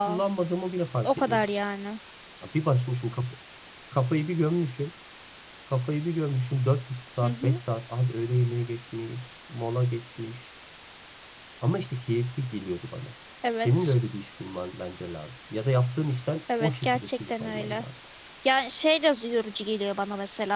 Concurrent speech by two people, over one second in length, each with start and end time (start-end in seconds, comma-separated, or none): 16.6-17.8